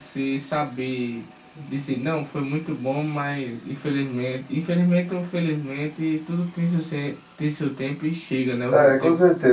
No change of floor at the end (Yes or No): No